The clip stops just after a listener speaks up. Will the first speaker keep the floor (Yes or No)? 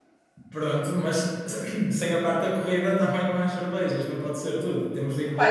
No